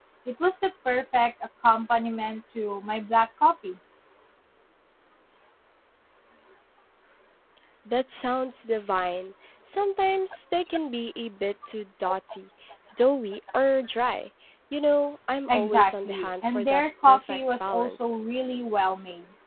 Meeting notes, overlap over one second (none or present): present